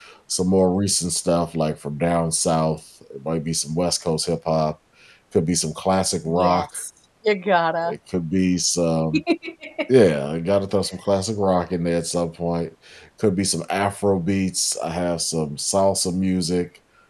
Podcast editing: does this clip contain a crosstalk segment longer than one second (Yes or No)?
No